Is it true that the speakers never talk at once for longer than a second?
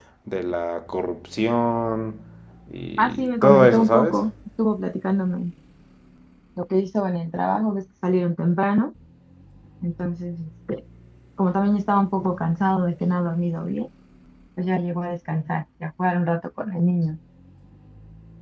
No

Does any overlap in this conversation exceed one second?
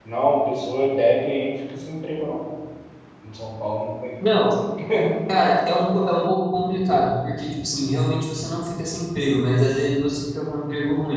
No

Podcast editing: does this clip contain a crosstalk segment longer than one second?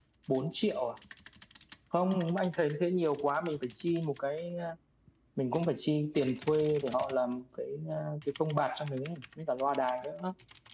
No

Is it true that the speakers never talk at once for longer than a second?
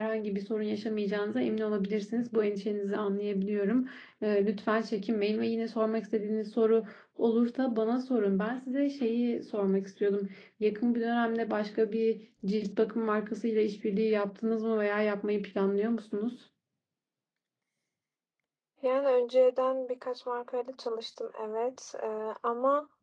Yes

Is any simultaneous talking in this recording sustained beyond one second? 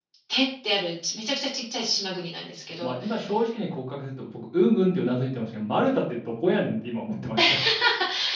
No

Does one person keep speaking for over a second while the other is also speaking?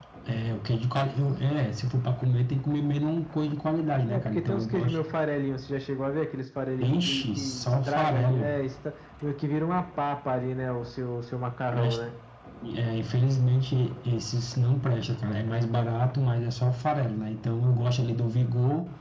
Yes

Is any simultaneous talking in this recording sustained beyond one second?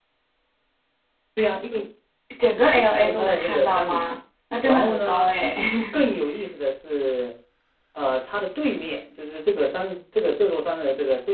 Yes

